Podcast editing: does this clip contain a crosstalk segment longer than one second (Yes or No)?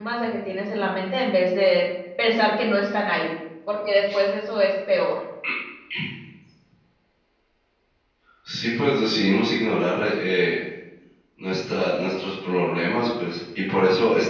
No